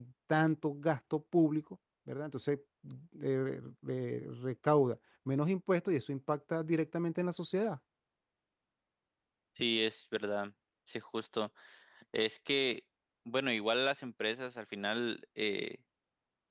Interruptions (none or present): none